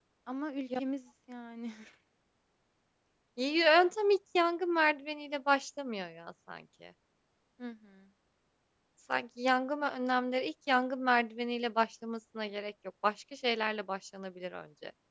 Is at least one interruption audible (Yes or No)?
No